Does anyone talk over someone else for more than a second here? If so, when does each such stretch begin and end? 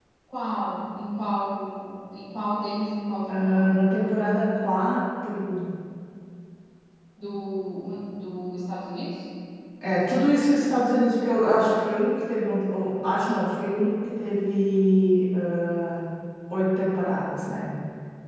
none

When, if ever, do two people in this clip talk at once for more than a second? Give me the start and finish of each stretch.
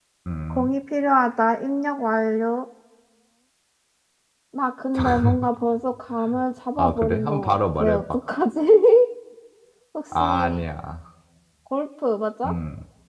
6.8-8.0

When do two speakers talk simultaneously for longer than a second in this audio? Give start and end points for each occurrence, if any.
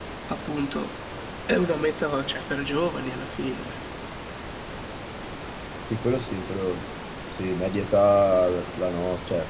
none

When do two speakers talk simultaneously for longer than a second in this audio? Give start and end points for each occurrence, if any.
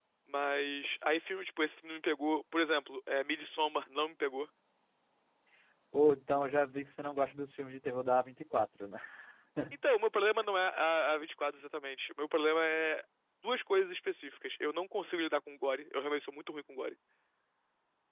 none

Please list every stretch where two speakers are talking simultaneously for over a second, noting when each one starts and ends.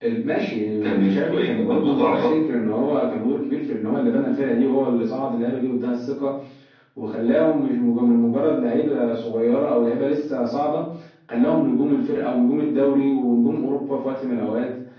0.8-2.3

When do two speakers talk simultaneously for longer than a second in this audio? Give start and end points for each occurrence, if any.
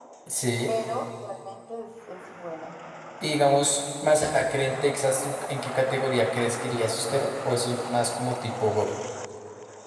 none

